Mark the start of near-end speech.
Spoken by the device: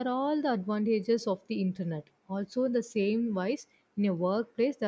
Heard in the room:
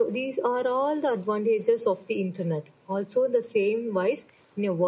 none

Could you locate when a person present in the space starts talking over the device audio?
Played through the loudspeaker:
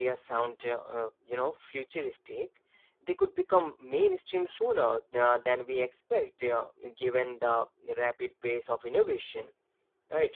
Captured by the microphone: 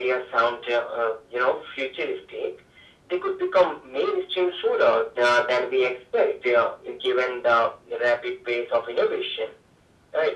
none

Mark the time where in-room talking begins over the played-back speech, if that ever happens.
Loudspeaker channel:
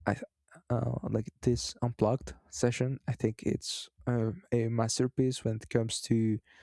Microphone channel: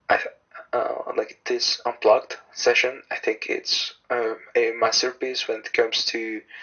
none

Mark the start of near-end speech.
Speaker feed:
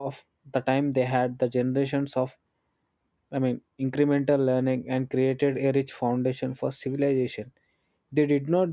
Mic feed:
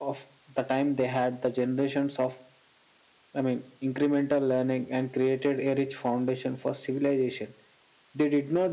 none

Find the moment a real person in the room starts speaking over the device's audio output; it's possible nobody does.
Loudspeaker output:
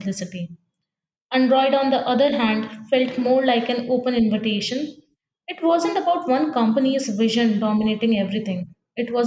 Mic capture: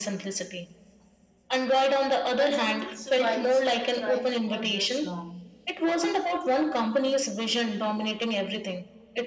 2.3 s

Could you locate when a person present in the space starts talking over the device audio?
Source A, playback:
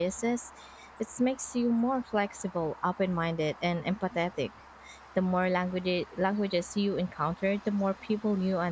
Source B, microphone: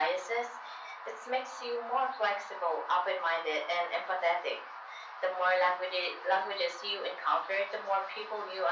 none

